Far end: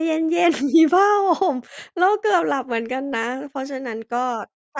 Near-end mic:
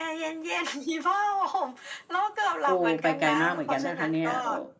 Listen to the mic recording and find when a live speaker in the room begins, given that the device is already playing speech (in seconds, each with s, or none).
2.6 s